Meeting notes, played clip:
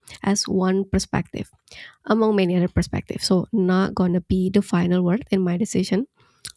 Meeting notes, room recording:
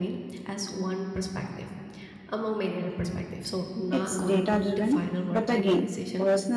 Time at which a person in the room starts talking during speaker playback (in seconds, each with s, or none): 3.9 s